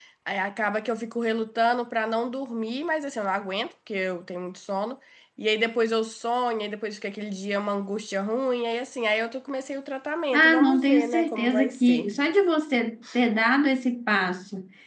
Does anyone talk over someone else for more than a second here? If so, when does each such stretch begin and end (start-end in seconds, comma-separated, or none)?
10.3-12.1